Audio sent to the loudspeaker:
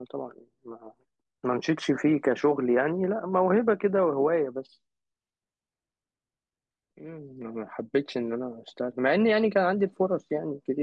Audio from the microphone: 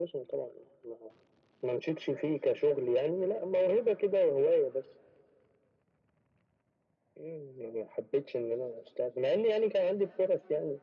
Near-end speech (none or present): none